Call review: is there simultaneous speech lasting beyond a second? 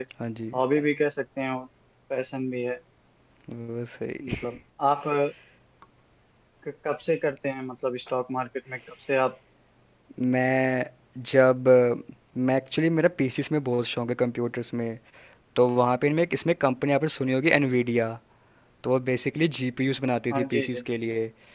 No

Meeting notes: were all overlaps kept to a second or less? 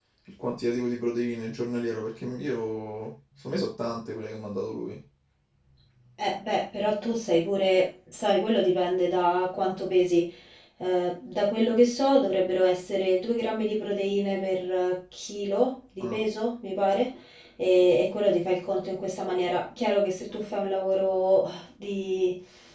Yes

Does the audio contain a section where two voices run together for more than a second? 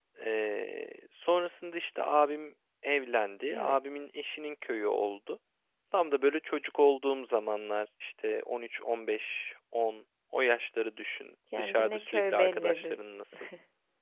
Yes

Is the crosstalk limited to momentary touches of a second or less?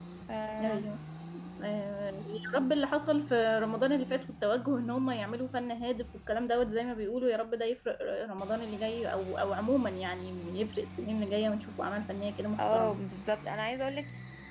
Yes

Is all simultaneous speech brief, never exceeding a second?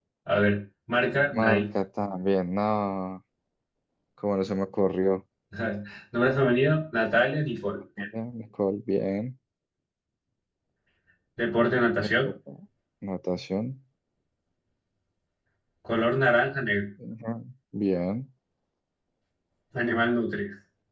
Yes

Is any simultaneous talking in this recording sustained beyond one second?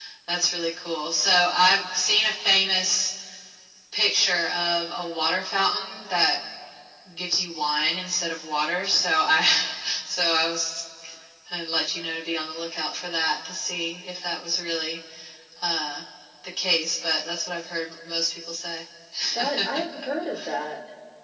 No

